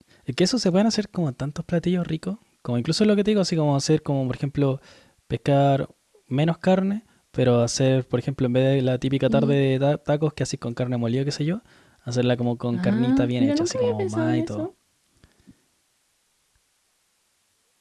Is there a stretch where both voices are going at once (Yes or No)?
Yes